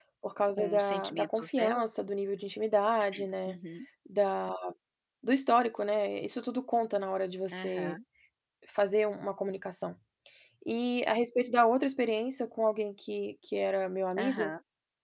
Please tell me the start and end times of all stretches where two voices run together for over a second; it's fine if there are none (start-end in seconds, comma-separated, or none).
0.6-1.8